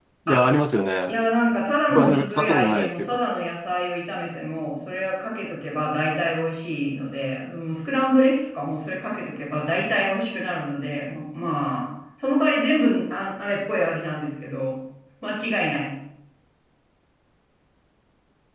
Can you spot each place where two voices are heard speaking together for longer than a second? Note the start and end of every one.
1.9-3.2

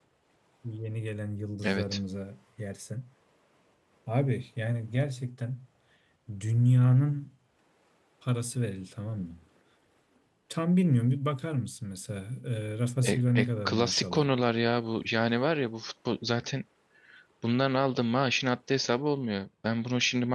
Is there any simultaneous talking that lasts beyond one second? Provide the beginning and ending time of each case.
13.1-14.3

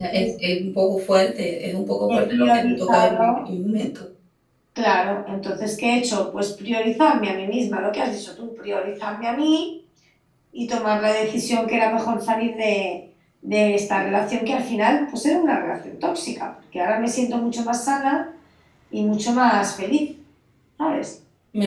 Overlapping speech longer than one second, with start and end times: 2.1-3.4

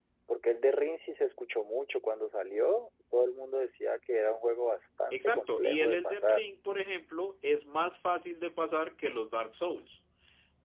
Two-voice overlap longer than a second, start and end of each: 5.1-6.4

